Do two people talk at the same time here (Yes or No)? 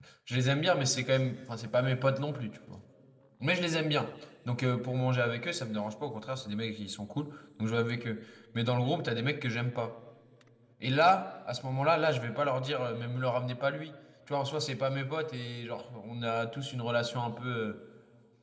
No